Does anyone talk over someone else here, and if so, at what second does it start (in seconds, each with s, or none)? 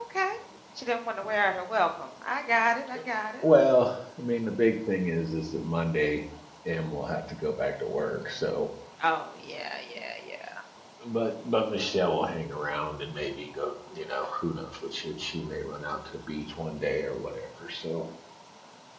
none